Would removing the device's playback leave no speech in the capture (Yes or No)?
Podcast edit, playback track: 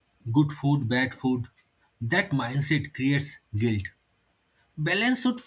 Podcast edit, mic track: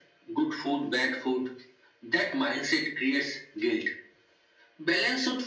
Yes